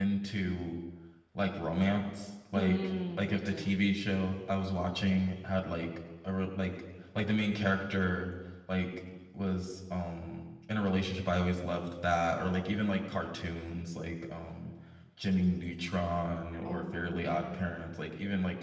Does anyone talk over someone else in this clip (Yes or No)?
Yes